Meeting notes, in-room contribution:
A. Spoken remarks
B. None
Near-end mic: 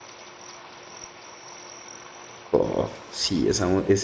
A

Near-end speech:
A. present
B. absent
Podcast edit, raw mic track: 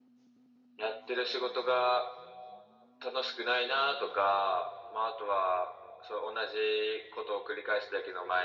B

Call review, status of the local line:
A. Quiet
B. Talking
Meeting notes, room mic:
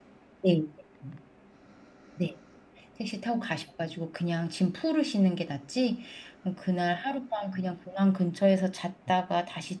B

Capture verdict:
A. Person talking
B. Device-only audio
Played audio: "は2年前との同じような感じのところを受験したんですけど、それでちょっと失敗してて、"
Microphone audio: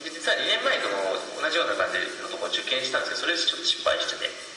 B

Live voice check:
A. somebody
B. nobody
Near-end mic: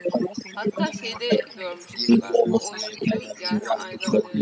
A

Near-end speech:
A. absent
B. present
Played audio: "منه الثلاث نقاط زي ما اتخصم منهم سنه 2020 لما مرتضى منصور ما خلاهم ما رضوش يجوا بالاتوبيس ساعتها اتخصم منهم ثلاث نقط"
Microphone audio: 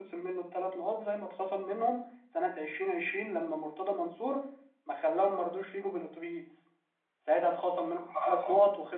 A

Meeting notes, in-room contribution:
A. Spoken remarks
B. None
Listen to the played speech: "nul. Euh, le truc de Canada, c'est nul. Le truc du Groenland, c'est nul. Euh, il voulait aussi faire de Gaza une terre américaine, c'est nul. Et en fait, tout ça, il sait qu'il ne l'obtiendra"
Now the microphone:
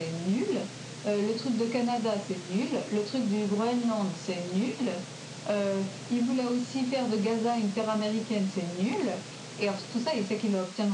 B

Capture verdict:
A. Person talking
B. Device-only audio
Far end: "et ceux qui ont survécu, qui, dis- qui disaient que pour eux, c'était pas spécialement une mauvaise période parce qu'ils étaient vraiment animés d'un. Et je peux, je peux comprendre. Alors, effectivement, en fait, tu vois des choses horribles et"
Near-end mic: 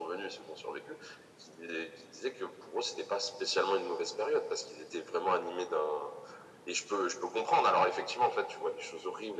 B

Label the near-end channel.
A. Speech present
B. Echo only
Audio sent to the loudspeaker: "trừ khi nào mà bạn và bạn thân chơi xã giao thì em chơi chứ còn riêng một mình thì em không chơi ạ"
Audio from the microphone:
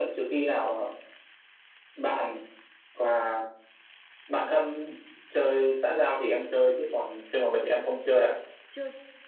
A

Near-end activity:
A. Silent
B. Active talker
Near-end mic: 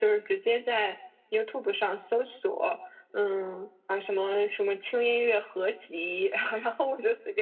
A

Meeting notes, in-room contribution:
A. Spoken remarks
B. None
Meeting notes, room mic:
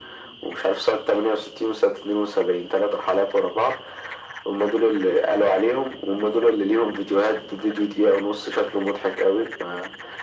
B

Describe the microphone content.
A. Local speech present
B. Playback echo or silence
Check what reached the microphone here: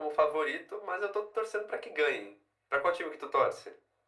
B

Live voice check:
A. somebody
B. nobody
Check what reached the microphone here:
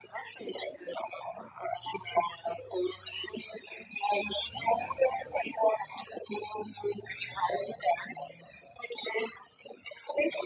B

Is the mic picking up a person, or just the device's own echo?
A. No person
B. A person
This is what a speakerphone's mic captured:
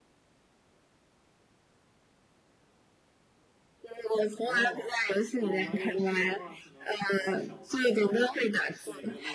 B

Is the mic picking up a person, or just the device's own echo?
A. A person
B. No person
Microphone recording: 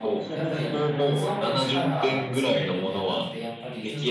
A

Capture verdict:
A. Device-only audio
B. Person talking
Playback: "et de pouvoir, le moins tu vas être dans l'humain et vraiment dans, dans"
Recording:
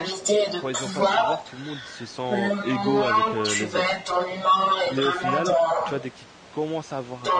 B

